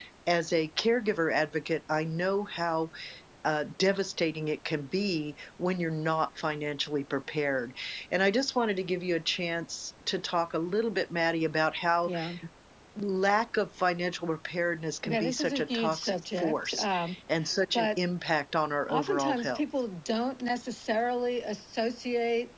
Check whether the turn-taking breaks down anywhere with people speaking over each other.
Yes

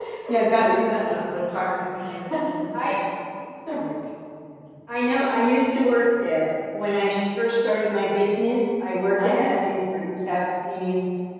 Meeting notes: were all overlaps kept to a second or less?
Yes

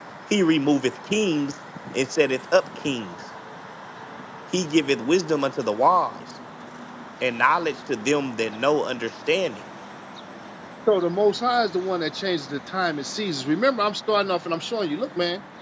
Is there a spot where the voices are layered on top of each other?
No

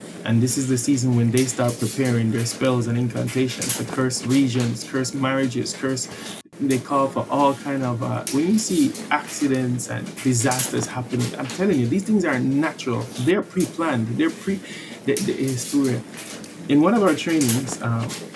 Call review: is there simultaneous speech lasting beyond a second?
No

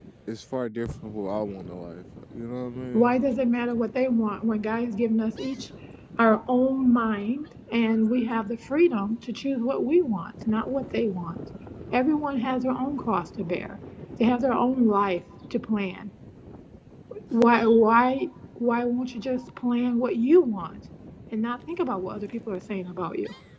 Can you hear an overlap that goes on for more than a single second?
No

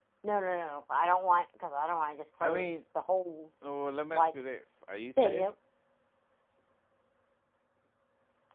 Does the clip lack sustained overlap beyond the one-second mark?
Yes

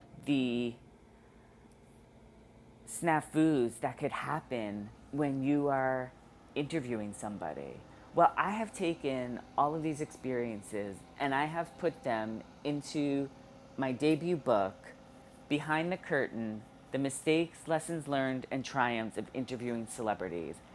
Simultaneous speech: No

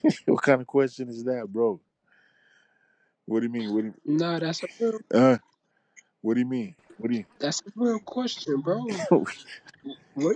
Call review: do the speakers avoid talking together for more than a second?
Yes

